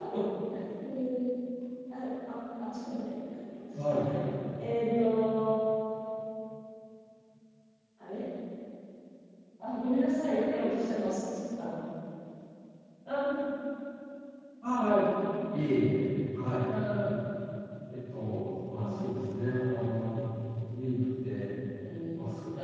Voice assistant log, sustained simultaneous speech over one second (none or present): none